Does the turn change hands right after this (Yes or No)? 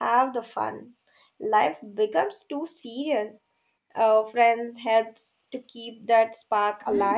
Yes